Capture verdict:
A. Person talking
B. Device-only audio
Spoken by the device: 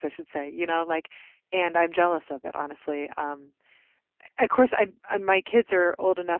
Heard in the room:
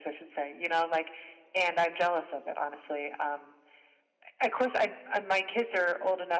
B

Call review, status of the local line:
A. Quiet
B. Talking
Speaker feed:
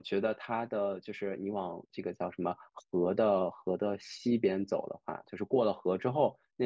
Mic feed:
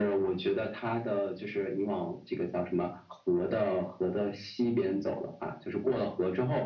A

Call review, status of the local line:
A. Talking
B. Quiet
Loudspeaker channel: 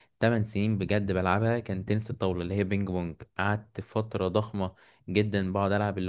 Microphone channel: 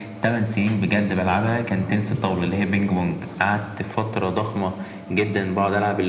B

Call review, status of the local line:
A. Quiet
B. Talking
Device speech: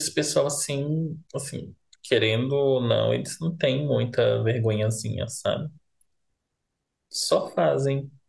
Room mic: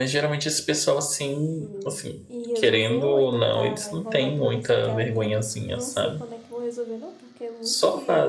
B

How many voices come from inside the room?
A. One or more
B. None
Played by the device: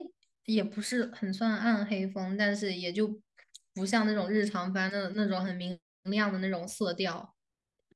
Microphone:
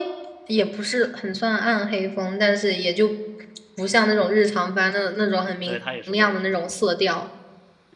A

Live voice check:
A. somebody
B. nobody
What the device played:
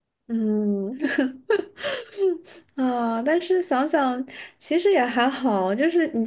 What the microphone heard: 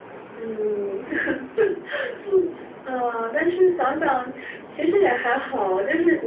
B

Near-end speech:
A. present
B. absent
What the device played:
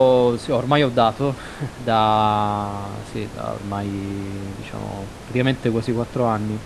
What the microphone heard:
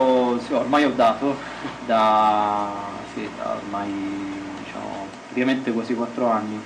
B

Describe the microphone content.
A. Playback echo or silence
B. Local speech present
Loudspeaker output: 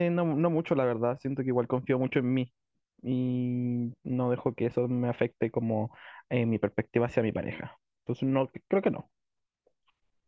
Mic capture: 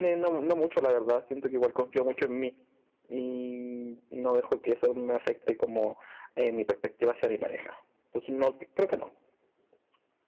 A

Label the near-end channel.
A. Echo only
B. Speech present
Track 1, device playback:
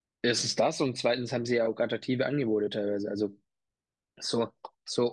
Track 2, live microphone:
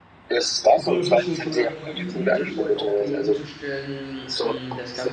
B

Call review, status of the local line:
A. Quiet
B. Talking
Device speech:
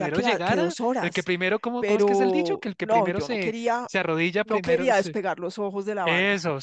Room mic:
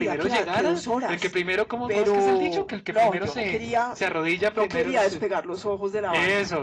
A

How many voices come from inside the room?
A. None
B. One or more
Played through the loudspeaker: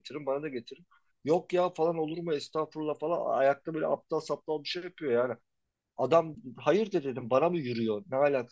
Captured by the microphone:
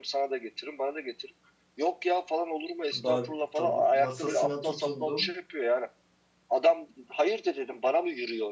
B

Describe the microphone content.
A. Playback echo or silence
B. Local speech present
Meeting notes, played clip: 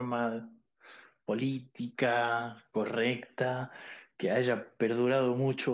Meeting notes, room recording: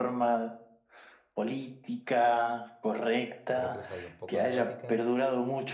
B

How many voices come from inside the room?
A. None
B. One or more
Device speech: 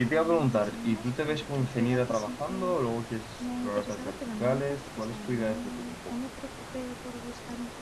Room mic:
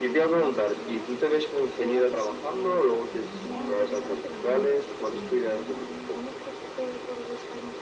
B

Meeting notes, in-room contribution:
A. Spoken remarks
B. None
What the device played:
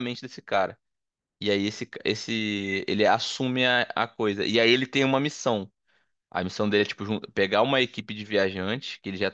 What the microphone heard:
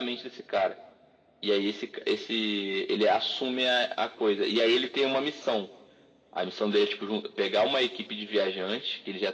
B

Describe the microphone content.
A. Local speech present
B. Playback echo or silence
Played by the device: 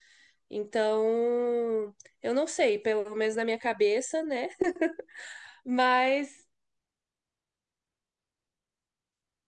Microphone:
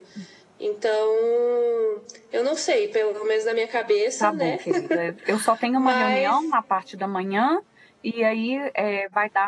A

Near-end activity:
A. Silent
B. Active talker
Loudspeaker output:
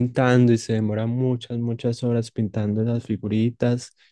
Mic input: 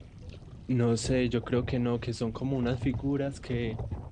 B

